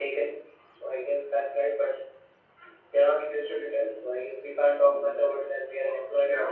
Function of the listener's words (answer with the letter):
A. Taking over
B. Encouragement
A